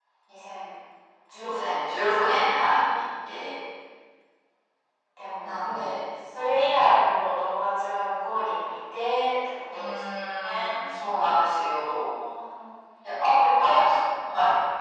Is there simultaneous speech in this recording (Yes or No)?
Yes